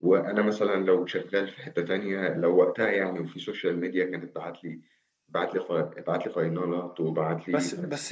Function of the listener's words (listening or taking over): taking over